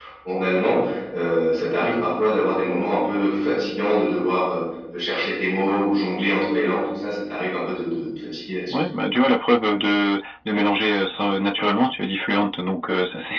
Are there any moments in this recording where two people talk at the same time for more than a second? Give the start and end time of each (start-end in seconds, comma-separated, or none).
none